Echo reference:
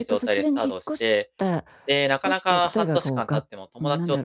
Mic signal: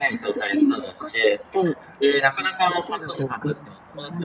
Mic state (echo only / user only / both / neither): echo only